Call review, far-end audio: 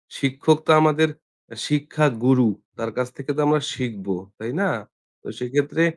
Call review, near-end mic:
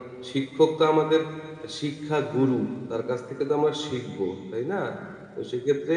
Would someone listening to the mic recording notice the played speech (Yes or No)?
Yes